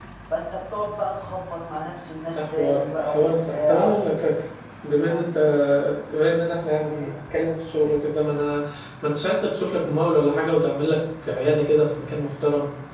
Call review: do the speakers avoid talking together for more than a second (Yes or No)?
No